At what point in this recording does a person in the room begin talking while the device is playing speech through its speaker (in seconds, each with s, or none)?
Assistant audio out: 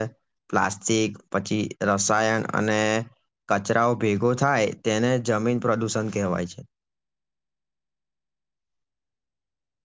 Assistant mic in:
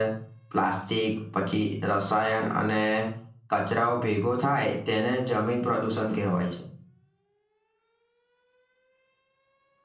none